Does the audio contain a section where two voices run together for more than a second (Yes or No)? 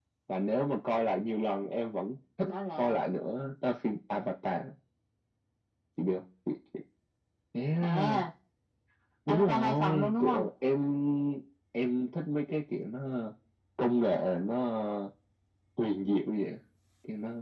Yes